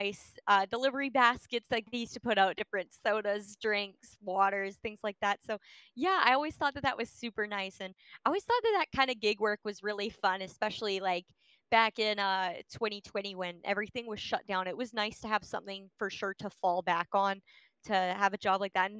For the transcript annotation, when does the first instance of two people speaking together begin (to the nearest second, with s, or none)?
none